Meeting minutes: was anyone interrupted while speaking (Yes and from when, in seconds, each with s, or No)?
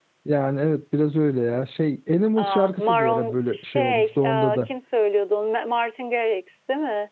Yes, from 2.4 s